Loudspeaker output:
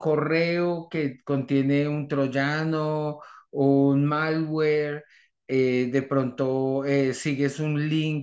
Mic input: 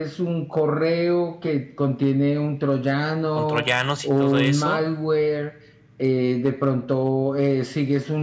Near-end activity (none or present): present